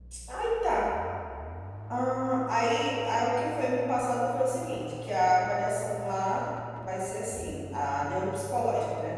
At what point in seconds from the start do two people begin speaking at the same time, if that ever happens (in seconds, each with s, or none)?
none